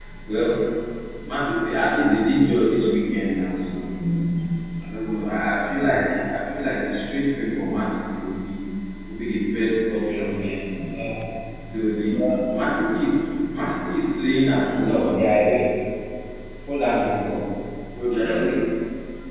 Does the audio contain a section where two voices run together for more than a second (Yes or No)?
No